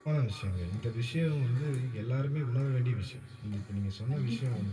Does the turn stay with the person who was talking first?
Yes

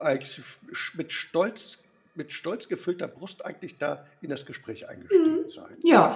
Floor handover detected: Yes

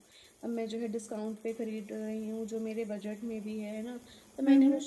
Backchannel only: Yes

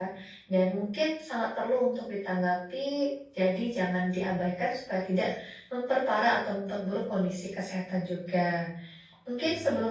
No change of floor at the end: Yes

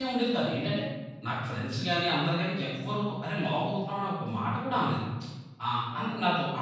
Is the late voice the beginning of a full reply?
No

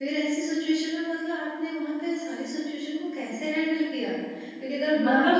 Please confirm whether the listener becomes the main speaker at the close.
No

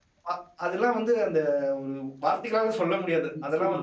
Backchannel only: Yes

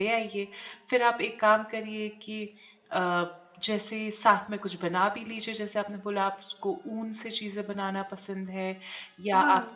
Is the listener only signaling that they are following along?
Yes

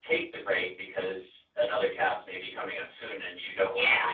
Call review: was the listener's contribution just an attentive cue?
No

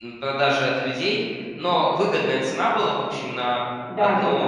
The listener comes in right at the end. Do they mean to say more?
No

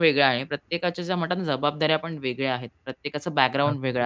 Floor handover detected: No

